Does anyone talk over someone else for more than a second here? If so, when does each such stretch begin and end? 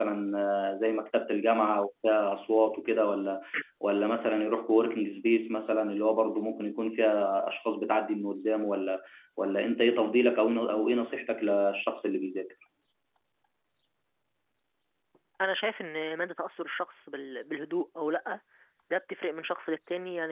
none

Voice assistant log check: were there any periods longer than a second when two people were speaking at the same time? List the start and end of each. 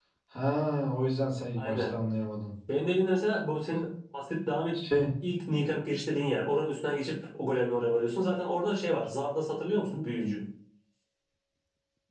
none

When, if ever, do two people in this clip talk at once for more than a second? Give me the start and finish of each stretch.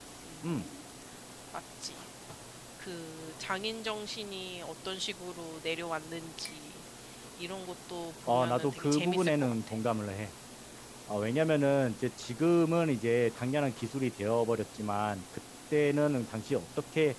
8.3-9.6

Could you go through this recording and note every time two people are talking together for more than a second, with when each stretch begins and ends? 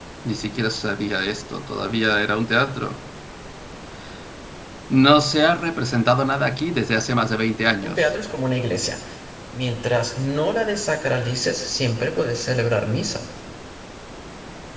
none

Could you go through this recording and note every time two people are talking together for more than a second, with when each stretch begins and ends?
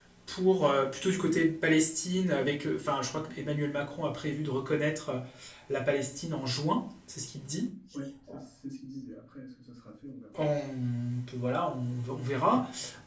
none

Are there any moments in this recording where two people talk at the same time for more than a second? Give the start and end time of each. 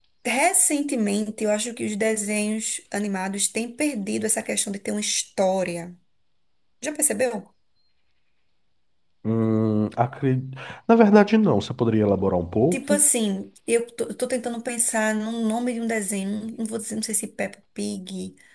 none

